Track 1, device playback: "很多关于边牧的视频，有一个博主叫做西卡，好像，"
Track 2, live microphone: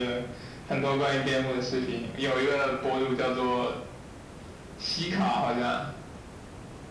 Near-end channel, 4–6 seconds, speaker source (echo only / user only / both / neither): echo only